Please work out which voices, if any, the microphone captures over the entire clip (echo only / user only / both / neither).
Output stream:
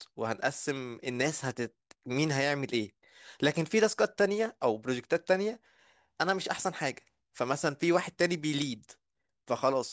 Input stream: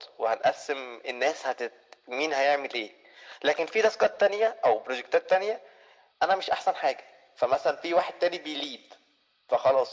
echo only